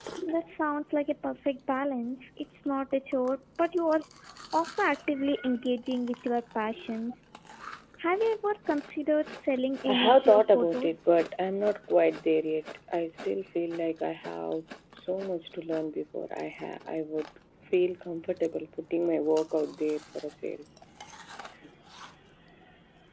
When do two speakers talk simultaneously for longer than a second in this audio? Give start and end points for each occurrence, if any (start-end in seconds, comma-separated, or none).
9.9-11.2